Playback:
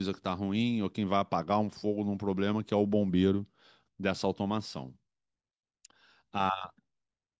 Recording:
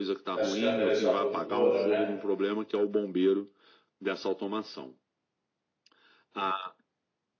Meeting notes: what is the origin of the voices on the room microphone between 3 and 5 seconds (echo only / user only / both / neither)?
echo only